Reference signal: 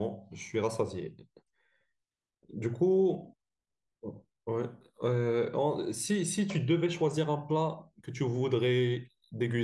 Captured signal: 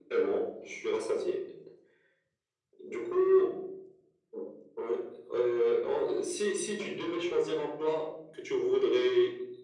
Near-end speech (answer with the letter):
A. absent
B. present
A